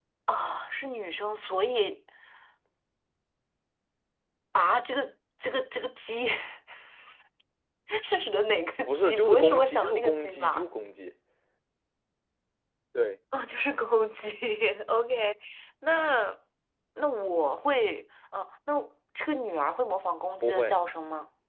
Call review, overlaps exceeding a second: present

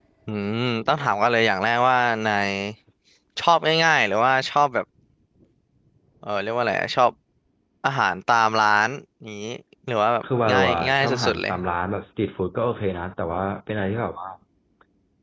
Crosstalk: present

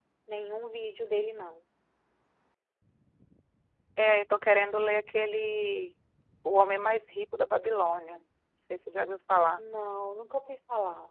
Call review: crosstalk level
none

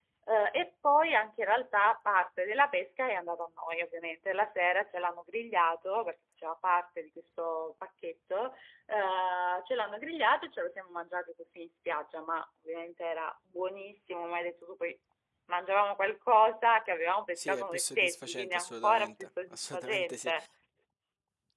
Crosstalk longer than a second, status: present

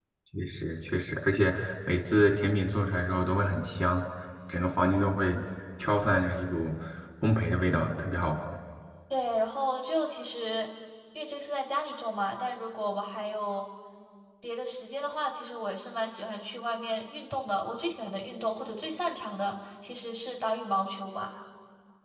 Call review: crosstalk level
none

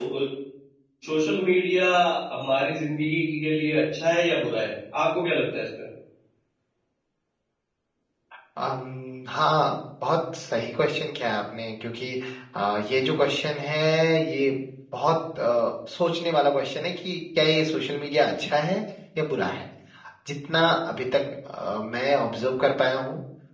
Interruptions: none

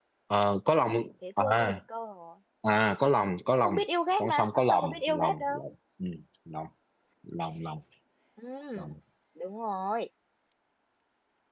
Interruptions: present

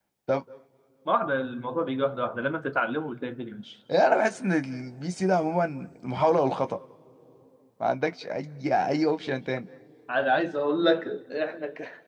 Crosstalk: none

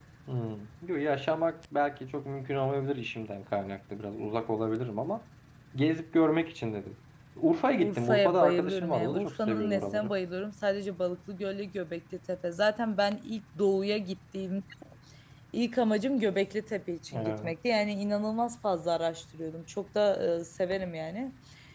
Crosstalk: present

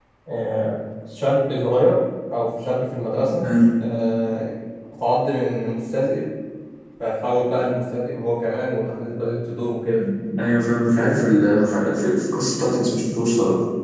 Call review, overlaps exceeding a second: none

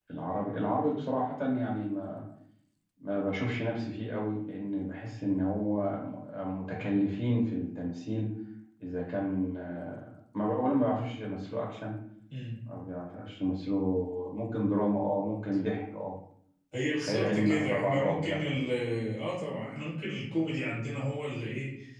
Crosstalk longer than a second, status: present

